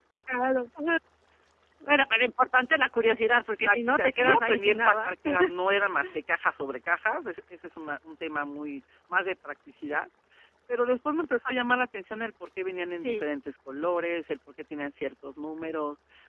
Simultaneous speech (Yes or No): Yes